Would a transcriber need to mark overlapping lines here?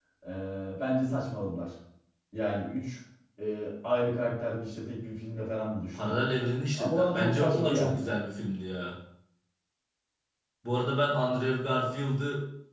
Yes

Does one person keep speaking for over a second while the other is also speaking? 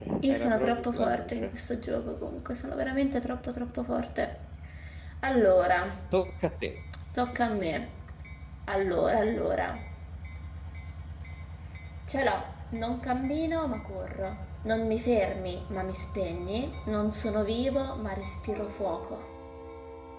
Yes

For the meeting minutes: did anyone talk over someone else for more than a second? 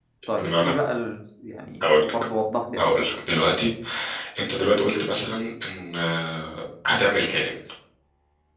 No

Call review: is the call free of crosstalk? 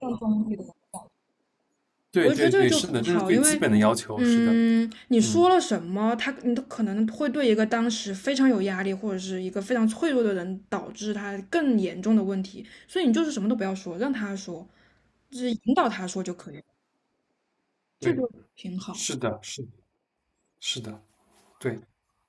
No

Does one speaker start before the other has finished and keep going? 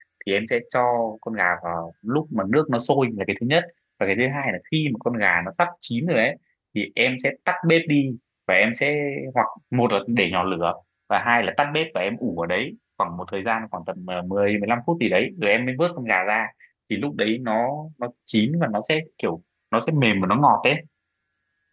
No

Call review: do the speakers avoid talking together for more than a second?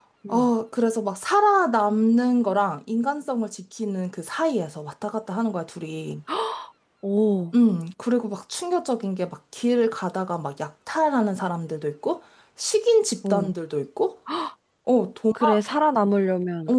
Yes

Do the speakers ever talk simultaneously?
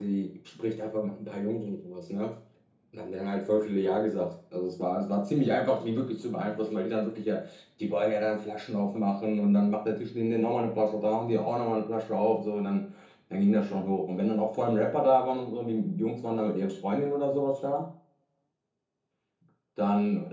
No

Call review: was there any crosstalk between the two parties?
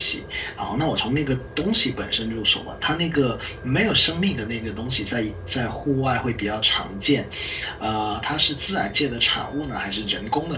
No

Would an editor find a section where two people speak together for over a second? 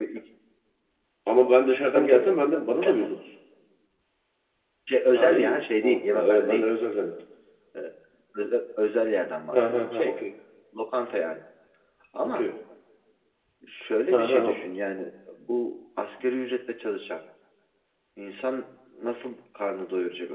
Yes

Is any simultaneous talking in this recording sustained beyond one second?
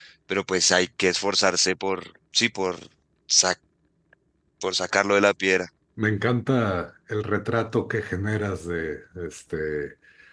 No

